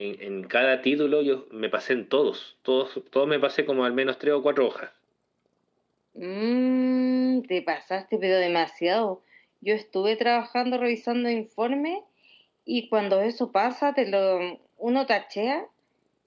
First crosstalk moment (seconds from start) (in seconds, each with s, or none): none